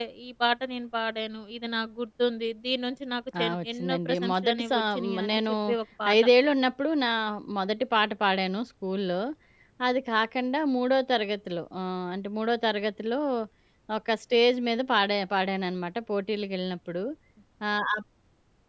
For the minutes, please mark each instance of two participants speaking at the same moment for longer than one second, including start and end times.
3.4-5.5

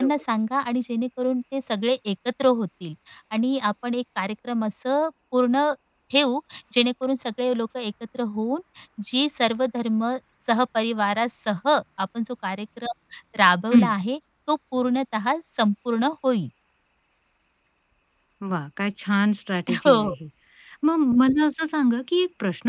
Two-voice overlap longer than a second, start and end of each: none

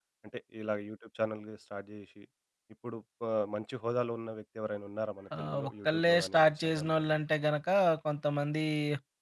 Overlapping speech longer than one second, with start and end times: 5.4-7.0

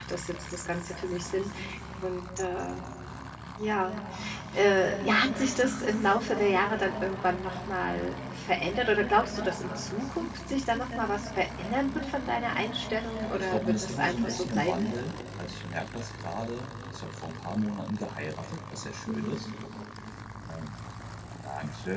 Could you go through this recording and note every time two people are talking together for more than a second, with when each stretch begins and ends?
13.2-14.9

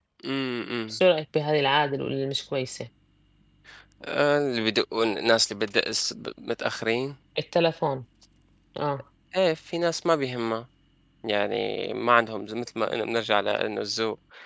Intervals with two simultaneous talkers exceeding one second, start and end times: none

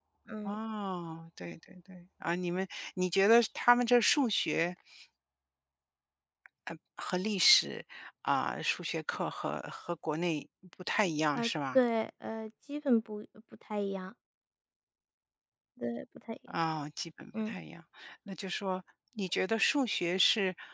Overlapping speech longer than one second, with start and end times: none

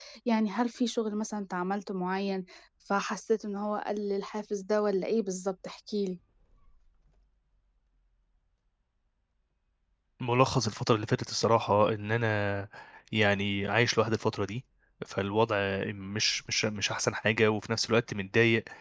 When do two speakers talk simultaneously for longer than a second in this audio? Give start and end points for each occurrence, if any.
none

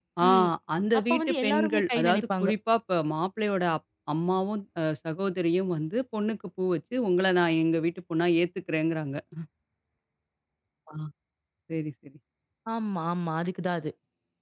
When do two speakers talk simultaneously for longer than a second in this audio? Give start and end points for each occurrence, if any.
1.0-2.5

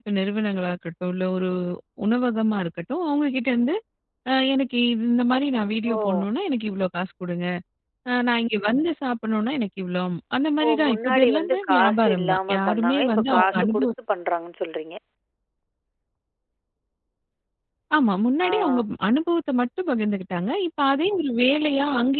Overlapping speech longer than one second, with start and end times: 10.7-13.9

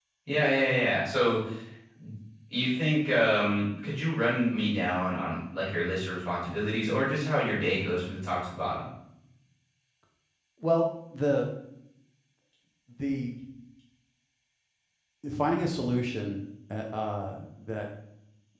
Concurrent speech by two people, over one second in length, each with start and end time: none

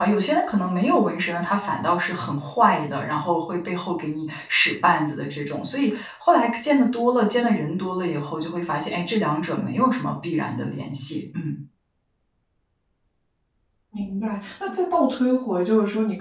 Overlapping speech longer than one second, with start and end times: none

